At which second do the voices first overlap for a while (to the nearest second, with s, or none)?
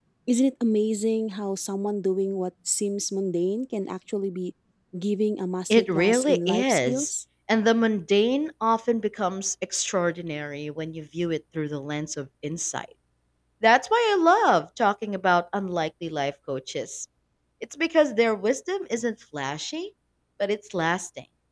6 s